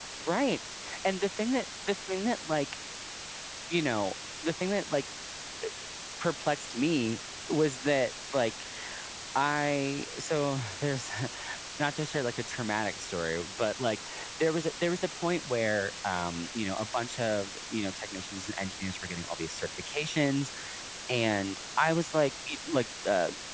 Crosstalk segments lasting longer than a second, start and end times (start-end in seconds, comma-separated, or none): none